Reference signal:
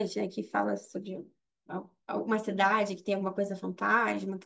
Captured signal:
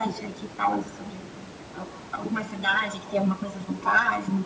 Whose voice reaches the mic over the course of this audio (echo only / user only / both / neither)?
echo only